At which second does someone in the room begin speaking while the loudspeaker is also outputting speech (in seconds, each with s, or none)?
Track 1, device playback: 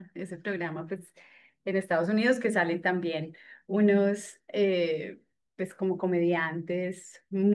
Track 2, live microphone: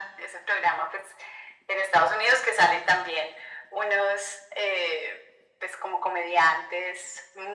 none